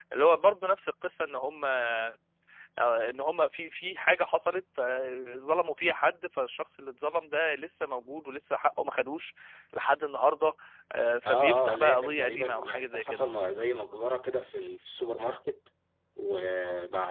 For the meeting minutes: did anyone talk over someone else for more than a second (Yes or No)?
Yes